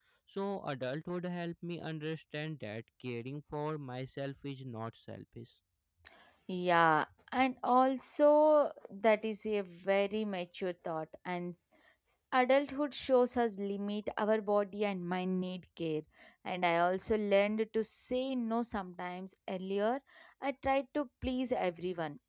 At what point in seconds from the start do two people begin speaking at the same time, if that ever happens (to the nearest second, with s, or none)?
none